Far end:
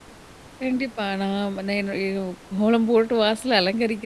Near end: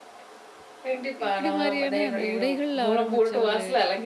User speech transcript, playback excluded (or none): இப்படி மாரியான அந்த உடைகள்ல ஆரம்பிச்ச ஒரு